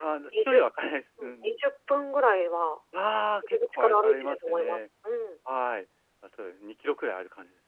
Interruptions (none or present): present